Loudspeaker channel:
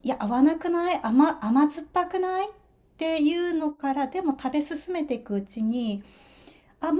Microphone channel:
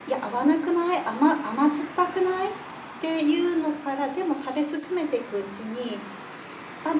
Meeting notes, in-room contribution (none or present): none